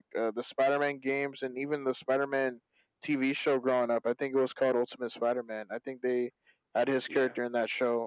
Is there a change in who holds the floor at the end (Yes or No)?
No